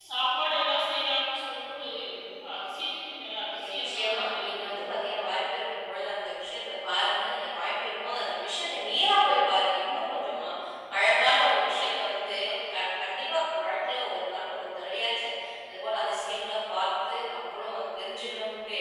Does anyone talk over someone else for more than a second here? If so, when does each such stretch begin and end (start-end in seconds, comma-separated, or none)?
3.6-5.0